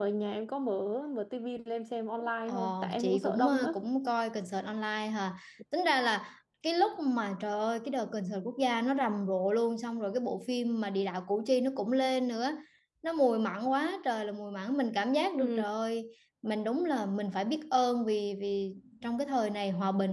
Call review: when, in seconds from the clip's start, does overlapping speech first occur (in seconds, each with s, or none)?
2.5 s